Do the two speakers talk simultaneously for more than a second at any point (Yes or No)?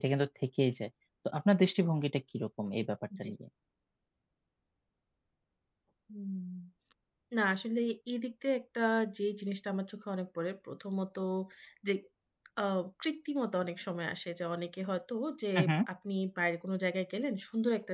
No